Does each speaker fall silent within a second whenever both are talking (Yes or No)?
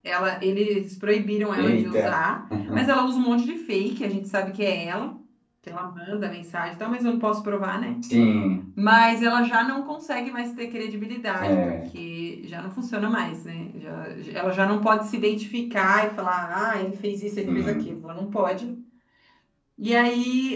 Yes